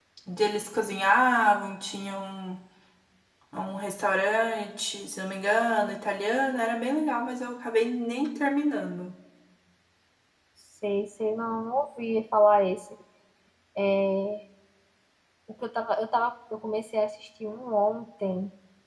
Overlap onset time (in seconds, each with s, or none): none